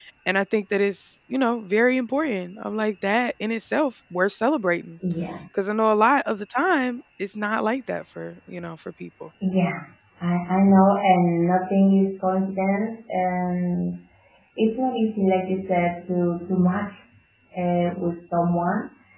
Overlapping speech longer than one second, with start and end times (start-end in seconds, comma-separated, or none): none